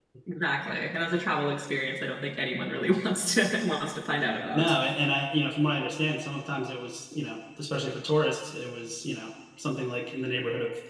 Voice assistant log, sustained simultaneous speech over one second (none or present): none